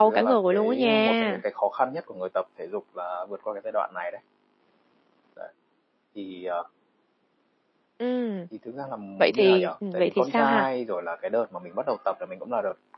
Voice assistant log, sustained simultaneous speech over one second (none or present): present